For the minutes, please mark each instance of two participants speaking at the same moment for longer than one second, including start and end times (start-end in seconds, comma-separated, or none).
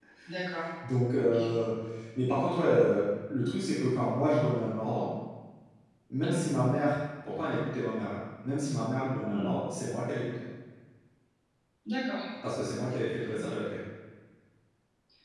none